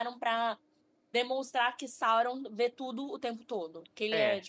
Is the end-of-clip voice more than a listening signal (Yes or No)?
Yes